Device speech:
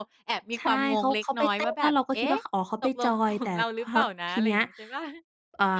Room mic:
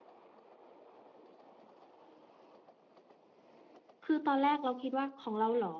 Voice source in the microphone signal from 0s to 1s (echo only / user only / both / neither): neither